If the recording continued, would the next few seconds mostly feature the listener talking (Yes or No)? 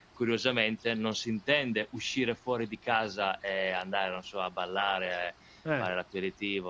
No